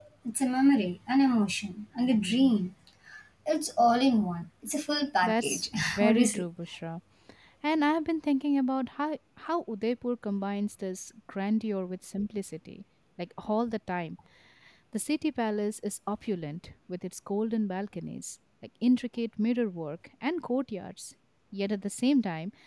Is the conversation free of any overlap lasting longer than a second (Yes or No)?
No